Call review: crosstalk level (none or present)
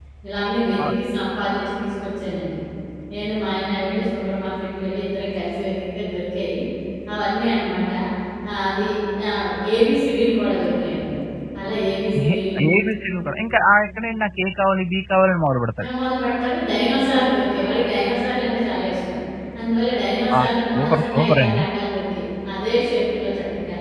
present